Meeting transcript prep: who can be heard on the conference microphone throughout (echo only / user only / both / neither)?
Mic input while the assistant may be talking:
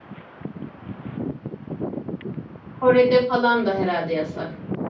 user only